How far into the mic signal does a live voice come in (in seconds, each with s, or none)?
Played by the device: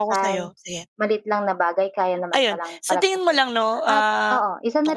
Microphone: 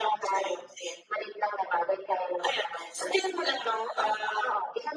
none